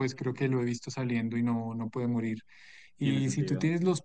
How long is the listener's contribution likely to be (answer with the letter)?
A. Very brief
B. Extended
A